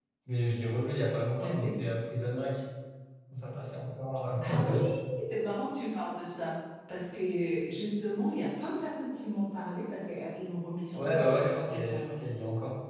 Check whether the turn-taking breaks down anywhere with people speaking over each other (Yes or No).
Yes